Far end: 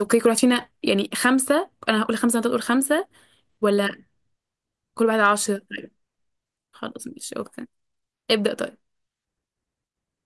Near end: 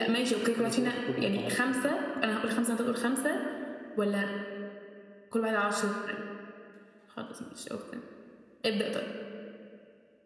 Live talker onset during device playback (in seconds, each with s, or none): 0.6 s